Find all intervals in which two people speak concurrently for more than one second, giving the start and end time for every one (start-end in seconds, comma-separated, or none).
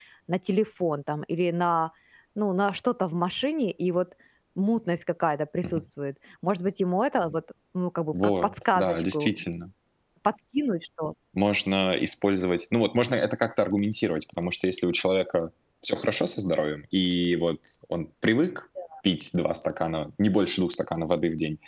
8.1-9.4